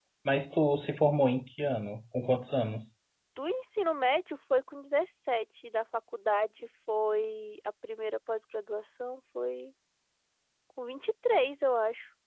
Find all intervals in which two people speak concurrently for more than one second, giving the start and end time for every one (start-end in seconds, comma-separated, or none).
none